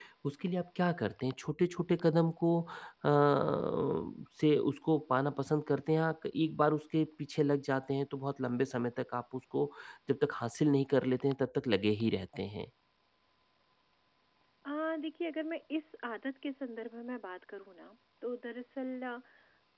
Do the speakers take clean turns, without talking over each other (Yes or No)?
Yes